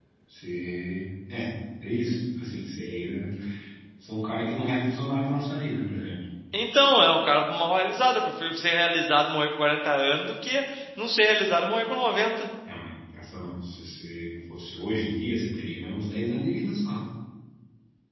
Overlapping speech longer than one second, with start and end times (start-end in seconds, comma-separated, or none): none